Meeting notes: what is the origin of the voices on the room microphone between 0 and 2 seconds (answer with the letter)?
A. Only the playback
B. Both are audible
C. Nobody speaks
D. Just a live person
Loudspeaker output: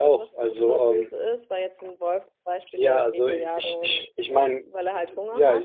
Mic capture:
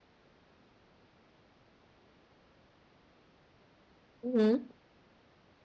C